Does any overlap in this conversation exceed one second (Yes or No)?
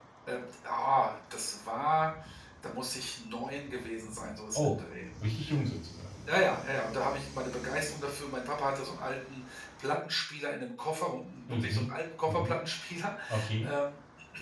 No